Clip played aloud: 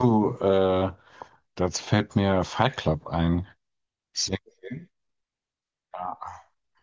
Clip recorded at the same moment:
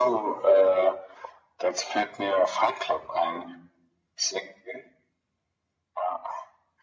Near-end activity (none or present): none